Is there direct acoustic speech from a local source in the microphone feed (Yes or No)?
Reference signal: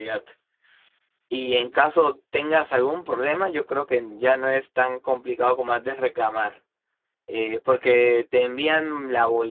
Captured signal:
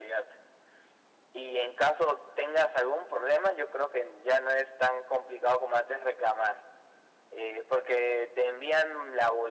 No